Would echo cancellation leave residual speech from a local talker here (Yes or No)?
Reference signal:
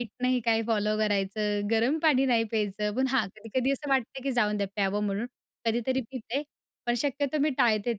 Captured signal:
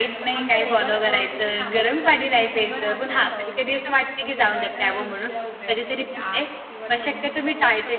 Yes